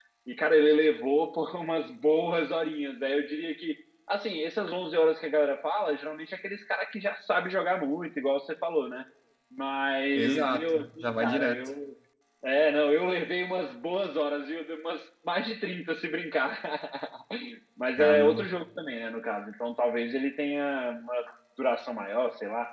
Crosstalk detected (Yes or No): Yes